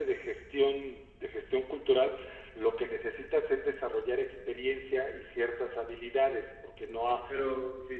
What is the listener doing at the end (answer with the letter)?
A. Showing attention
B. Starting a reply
B